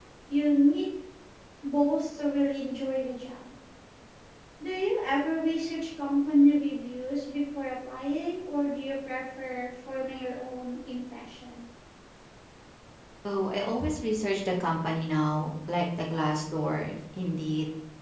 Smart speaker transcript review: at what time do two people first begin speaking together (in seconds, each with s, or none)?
none